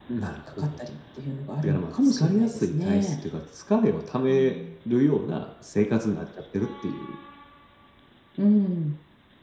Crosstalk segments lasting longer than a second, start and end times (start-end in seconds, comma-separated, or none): 1.6-3.1